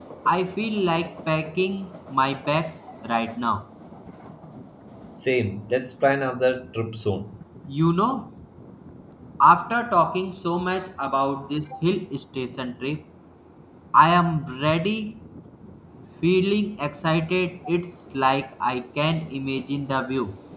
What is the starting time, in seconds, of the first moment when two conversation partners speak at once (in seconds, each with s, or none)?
none